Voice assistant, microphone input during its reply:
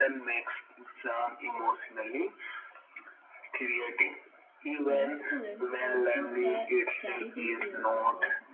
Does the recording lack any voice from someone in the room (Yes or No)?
No